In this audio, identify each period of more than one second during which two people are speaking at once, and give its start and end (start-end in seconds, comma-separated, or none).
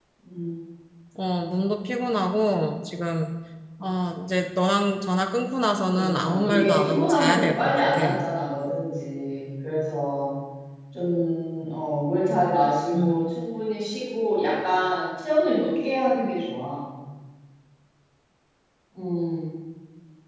5.9-8.0